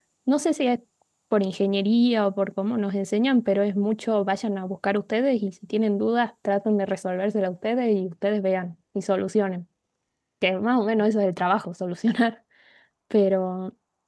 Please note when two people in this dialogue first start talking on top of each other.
none

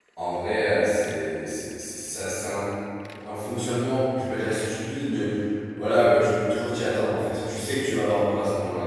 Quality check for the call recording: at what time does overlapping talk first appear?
none

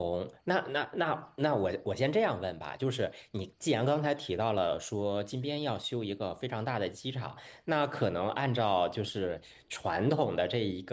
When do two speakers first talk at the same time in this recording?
none

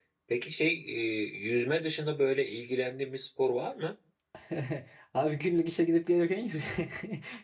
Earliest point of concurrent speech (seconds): none

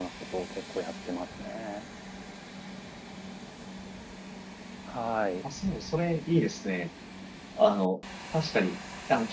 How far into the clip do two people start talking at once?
none

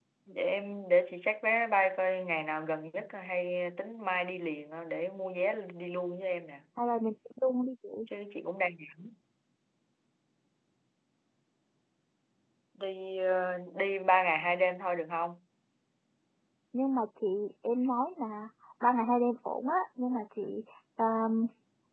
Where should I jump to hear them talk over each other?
none

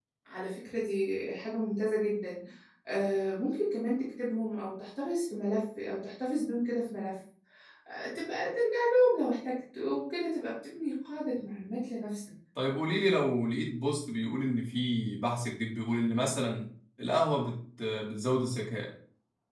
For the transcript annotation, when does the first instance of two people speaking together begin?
none

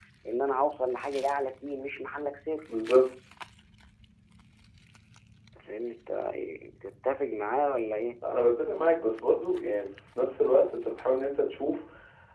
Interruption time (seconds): none

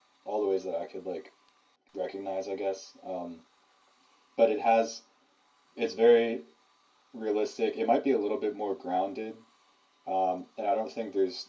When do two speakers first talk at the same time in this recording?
none

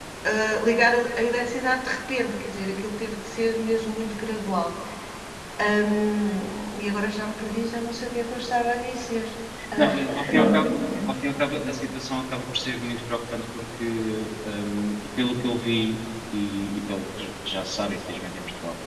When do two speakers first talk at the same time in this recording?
10 s

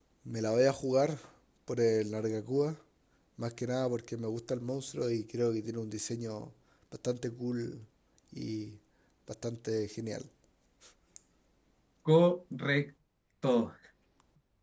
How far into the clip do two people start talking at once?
none

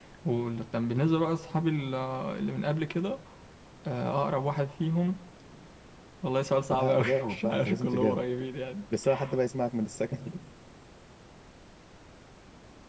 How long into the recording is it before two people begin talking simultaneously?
7 s

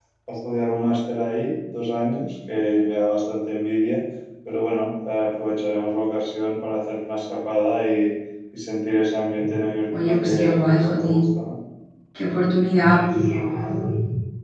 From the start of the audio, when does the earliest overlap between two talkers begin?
10 s

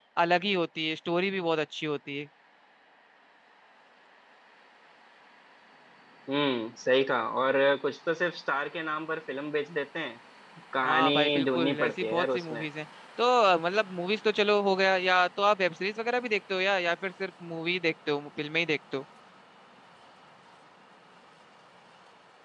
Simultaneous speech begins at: 11 s

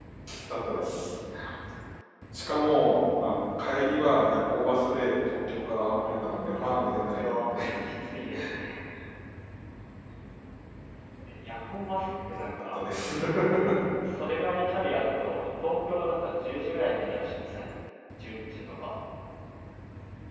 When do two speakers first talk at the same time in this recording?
6 s

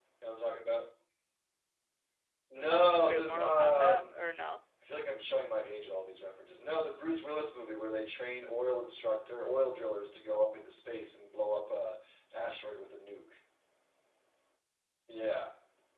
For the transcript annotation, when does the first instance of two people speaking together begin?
3 s

